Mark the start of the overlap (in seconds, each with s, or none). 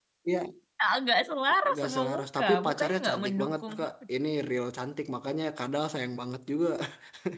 1.7 s